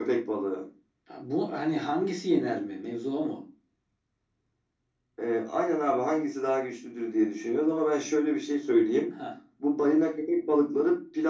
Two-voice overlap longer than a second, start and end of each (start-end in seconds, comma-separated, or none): none